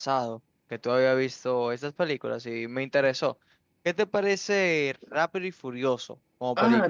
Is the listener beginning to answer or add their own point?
Yes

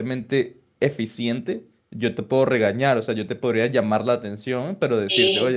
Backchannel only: Yes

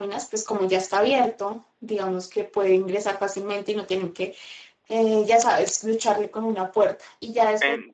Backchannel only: Yes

